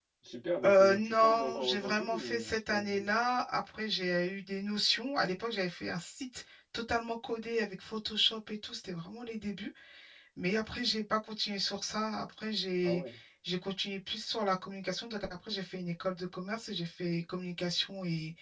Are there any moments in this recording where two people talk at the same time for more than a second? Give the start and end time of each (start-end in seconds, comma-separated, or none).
0.6-3.1